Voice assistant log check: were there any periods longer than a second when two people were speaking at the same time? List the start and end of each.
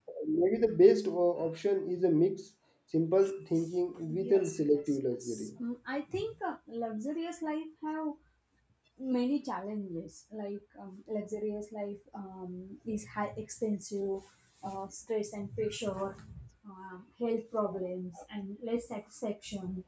4.2-5.5

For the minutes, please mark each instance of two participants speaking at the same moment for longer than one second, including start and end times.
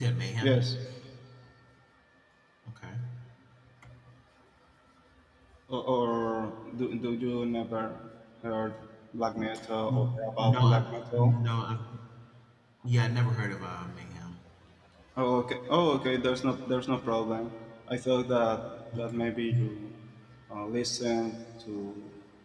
9.9-11.3

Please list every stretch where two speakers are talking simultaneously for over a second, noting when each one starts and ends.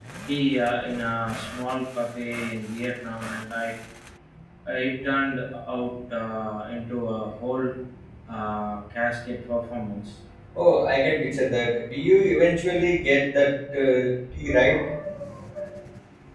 none

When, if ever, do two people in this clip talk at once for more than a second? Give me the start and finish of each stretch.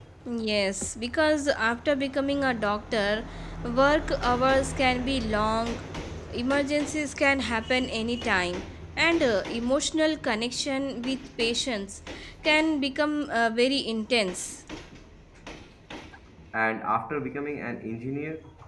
none

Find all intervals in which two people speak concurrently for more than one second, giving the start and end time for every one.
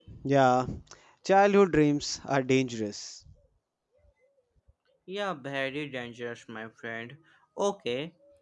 none

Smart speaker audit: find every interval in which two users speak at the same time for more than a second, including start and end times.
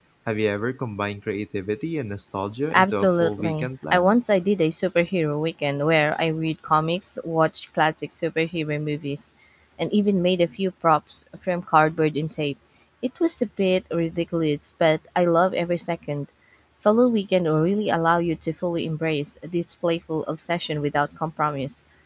2.7-4.2

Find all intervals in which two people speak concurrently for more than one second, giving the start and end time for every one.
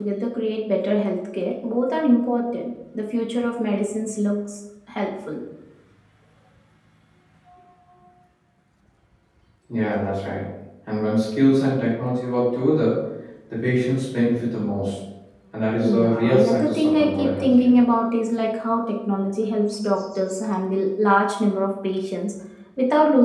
15.8-17.7

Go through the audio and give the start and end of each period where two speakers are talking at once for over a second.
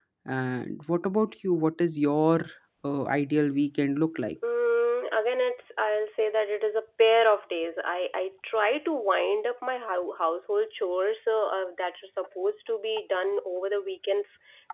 none

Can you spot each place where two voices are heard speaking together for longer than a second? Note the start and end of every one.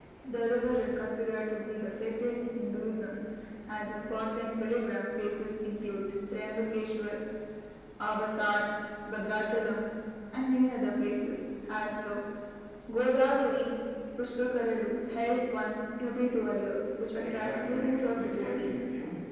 17.2-18.7

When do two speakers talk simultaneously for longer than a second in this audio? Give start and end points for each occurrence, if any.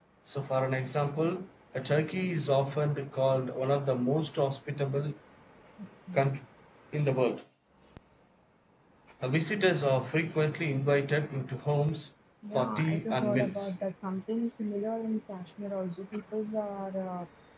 12.5-13.7

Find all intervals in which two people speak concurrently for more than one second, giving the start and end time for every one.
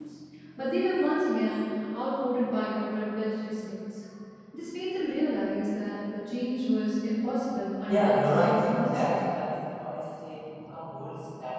7.9-9.2

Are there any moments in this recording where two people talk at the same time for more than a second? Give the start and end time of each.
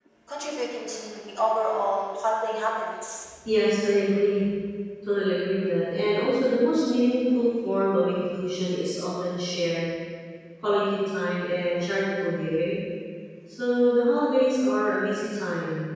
none

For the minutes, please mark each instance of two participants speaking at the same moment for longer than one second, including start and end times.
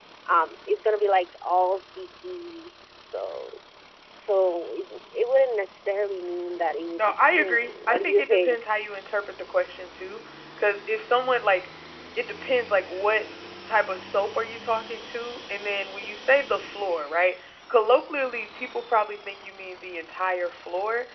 7.0-8.6

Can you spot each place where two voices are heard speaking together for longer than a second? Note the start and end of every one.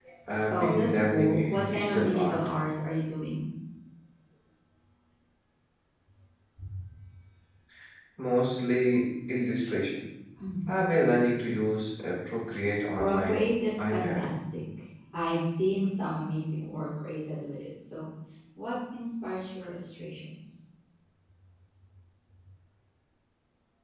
0.5-2.4

